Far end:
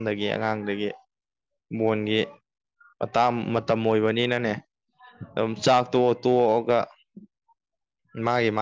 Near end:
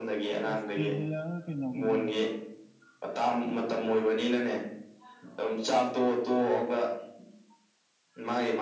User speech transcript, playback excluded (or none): ꯑꯁꯇ꯭ꯔꯦꯂꯤꯌꯥ ꯀꯩꯅꯧꯕꯅꯦ